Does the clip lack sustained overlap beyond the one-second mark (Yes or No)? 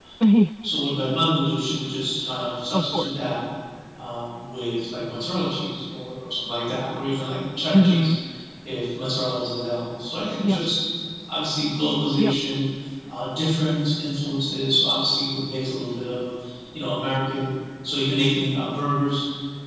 Yes